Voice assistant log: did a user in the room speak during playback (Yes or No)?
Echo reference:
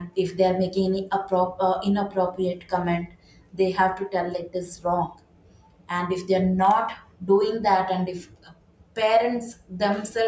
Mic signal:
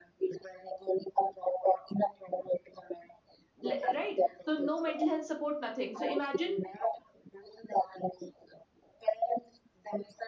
Yes